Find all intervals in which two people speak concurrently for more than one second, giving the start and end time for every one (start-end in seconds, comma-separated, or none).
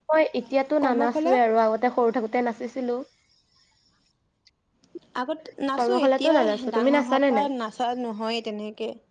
5.8-7.5